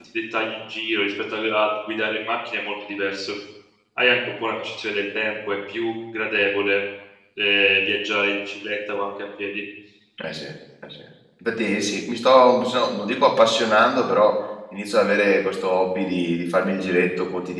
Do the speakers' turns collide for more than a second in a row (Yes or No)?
No